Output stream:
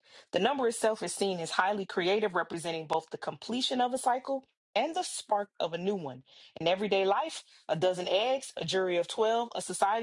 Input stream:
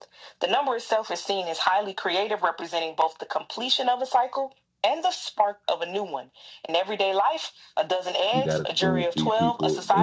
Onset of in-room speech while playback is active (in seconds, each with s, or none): 8.3 s